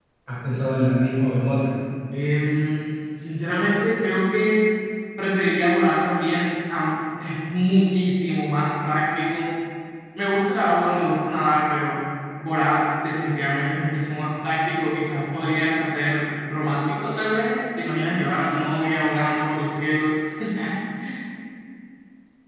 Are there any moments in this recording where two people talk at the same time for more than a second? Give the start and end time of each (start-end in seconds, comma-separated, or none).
none